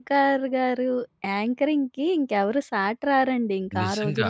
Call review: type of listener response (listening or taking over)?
taking over